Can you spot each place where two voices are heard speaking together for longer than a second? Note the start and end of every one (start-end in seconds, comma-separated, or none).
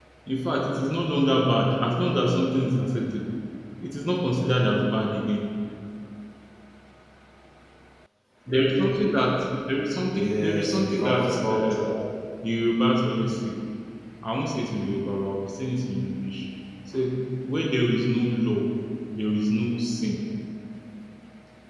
10.1-11.8